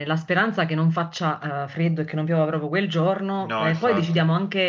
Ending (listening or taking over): listening